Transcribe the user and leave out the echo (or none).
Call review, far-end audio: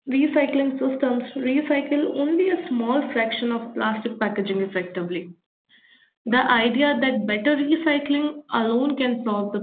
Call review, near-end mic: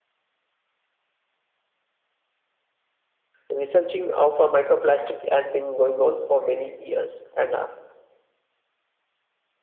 researching of a microplastic has been going on for many years and uh,